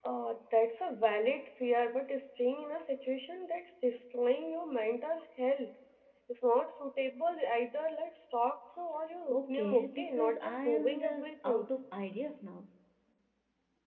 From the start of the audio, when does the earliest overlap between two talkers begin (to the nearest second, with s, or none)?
9 s